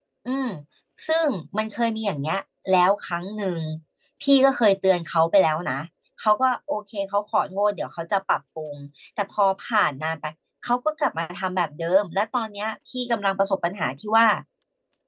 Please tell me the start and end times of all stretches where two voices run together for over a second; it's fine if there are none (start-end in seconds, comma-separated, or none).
none